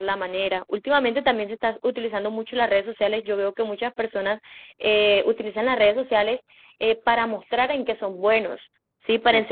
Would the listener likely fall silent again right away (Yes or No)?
Yes